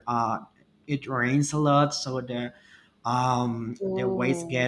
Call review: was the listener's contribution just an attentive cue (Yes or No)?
Yes